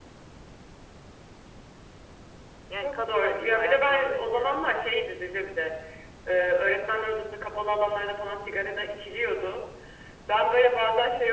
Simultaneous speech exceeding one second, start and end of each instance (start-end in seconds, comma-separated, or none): 2.8-5.1